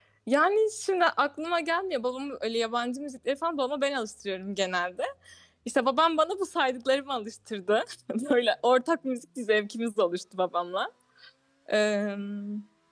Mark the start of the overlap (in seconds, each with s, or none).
none